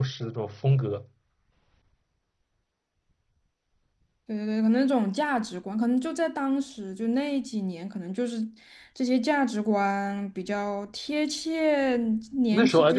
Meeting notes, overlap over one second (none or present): none